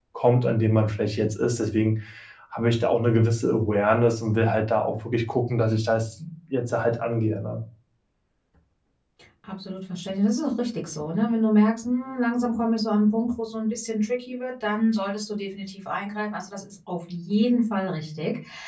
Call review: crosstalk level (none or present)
none